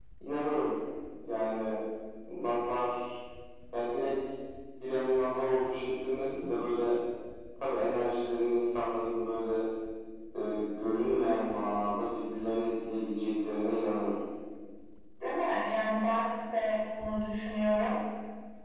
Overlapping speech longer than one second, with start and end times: none

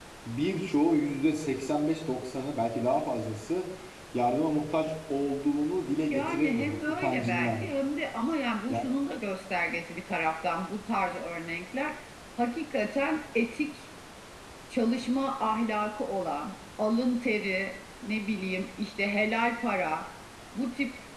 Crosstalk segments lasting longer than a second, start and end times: 6.1-7.7

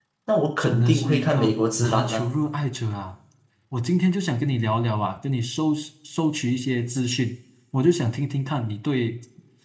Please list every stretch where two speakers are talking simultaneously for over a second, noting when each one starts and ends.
0.6-2.3

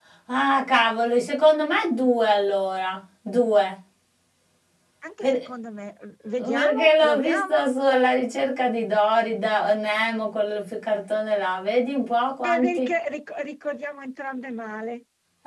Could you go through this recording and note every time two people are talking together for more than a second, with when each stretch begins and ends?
6.4-7.7

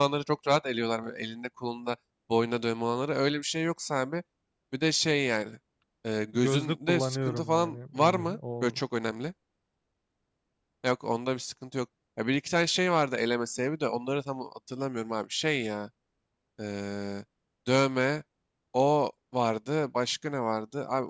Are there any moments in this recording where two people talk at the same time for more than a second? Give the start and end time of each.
6.3-8.8

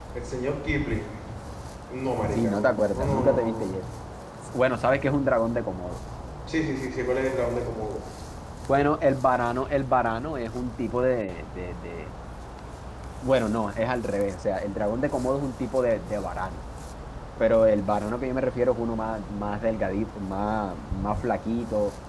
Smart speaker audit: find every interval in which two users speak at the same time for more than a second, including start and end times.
2.3-3.8

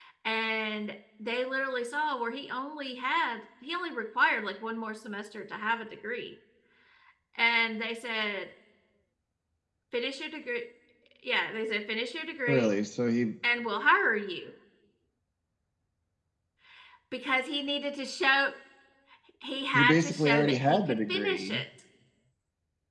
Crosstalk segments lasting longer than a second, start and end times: 19.7-21.6

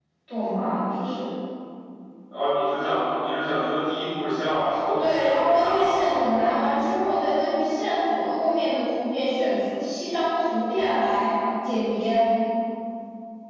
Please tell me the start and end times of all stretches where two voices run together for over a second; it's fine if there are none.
5.0-6.2

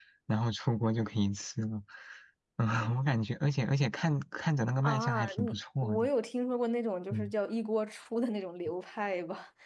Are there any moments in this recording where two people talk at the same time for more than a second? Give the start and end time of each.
4.8-6.1

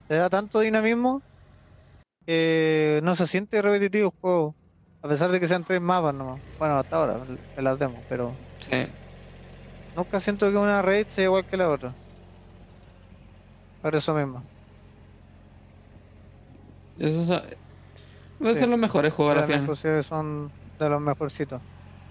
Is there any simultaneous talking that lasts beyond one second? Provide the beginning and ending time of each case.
none

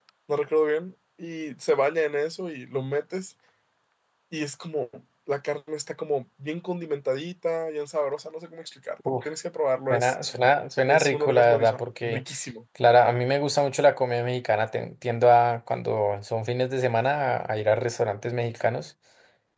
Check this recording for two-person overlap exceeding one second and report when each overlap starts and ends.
10.9-12.2

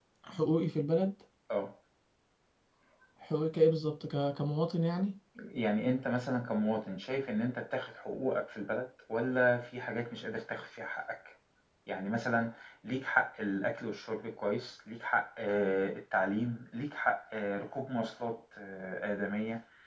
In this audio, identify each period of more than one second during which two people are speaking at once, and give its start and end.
none

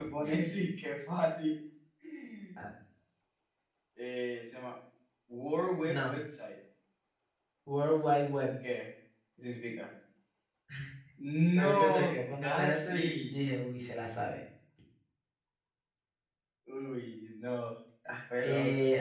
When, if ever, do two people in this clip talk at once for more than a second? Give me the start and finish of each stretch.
11.6-13.3

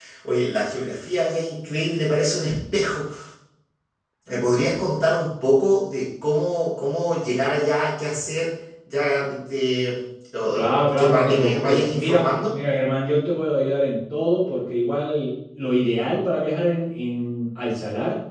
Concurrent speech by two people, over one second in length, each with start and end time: 10.5-12.5

